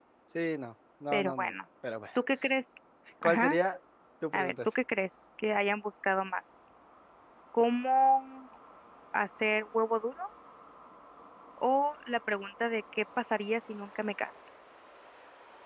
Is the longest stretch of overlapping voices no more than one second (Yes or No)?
Yes